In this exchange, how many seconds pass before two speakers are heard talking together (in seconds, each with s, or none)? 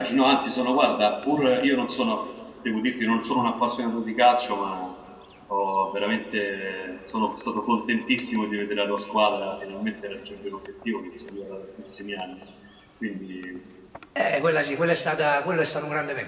none